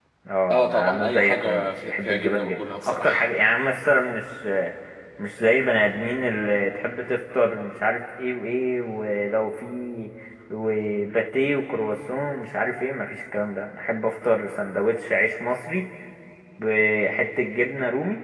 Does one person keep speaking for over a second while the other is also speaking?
Yes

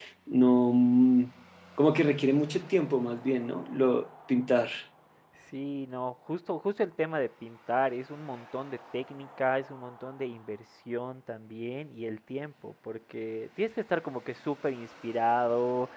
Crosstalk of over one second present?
No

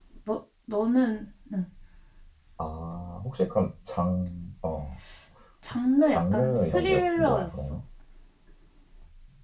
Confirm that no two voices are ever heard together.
No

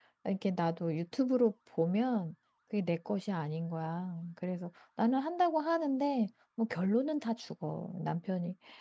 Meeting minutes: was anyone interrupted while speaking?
No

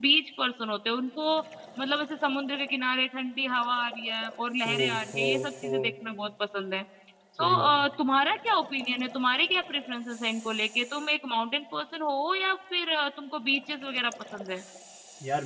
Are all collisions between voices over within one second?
No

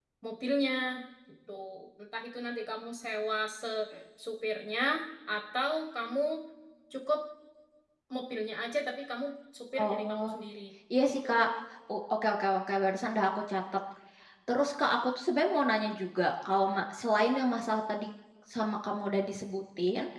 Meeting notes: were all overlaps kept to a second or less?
Yes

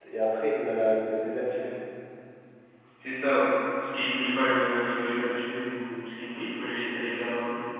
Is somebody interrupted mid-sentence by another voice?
No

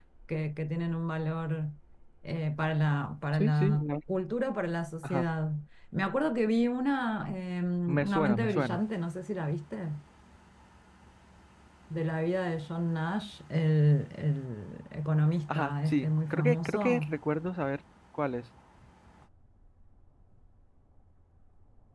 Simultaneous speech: Yes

